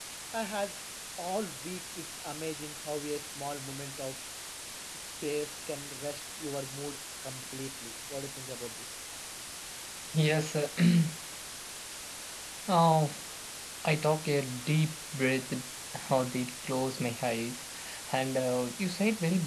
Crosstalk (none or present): none